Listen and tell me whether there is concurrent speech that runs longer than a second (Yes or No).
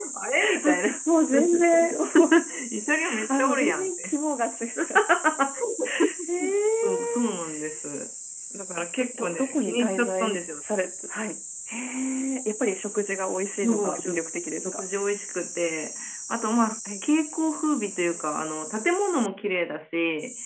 Yes